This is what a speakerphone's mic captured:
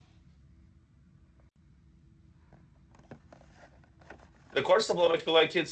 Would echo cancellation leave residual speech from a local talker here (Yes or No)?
Yes